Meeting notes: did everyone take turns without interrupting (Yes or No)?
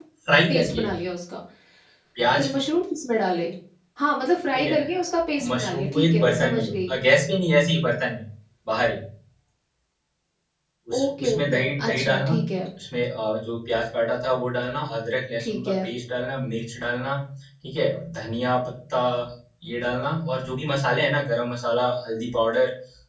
No